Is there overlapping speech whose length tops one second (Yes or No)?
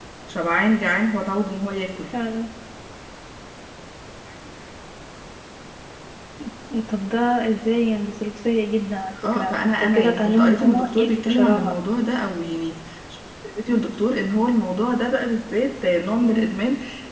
Yes